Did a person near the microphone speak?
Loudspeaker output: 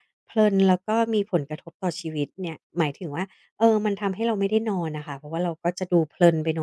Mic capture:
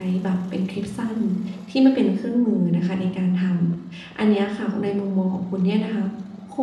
Yes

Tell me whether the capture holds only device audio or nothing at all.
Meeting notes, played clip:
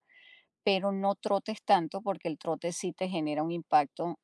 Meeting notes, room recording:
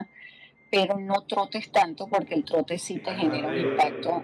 No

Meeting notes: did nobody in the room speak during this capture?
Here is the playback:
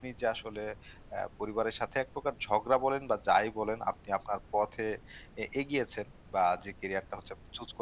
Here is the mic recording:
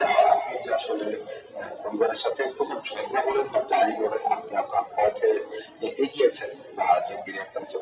Yes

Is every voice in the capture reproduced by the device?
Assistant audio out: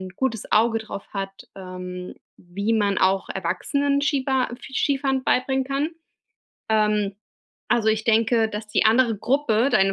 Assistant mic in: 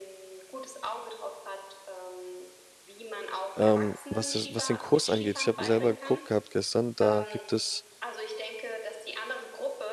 No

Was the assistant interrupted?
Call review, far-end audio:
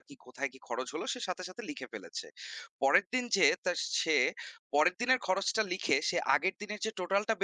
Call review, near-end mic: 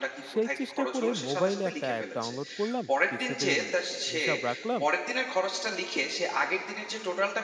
Yes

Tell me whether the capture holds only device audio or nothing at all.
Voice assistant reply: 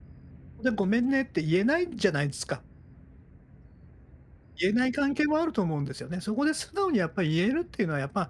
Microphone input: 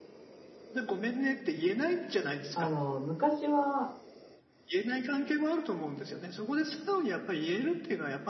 No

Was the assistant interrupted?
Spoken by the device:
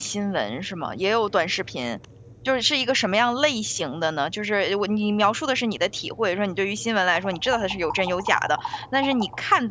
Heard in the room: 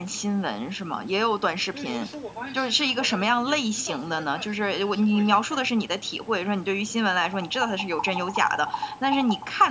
Yes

